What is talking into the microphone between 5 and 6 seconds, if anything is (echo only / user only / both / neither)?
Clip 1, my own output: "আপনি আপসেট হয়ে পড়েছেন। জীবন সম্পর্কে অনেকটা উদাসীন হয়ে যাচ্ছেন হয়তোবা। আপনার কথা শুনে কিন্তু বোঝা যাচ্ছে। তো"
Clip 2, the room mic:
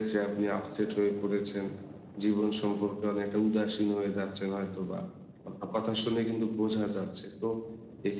echo only